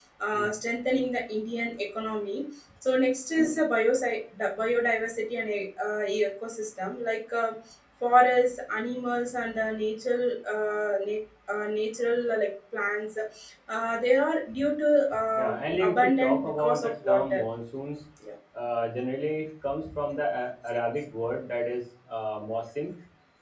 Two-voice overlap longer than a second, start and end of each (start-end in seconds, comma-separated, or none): 15.3-17.4